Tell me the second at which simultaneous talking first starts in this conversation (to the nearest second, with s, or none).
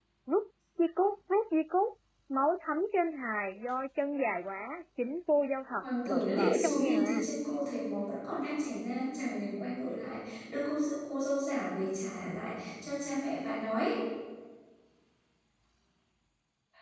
6 s